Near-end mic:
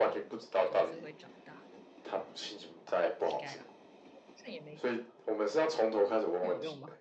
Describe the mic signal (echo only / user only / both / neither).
both